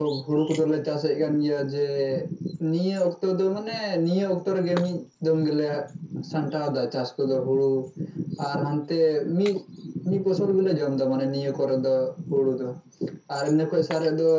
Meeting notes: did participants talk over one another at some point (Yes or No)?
No